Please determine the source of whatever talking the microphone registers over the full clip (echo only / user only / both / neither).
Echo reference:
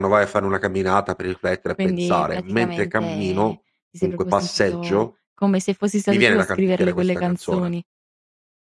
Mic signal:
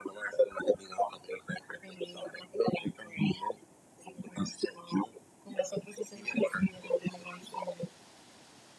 echo only